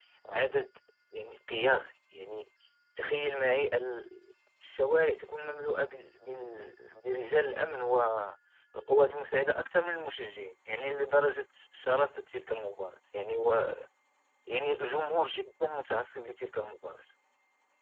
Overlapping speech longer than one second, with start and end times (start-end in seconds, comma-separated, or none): none